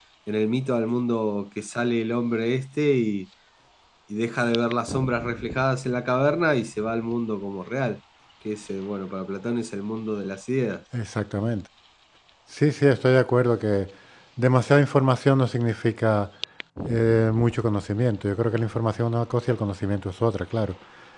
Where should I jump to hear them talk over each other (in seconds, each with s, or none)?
none